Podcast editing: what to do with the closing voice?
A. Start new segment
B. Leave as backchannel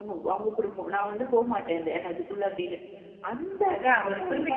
A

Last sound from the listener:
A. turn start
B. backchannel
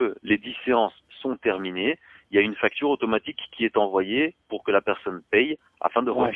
A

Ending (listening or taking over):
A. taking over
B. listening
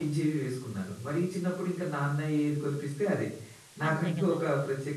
B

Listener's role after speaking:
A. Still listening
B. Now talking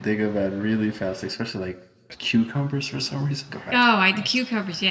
B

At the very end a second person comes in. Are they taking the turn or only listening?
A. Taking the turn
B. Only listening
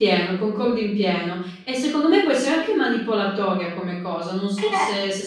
A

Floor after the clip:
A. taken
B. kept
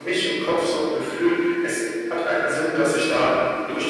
A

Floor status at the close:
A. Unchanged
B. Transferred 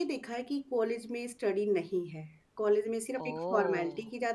A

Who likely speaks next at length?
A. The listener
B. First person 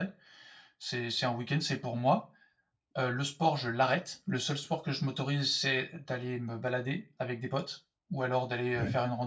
B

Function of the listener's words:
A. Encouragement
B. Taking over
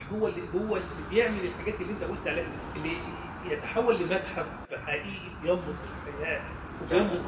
B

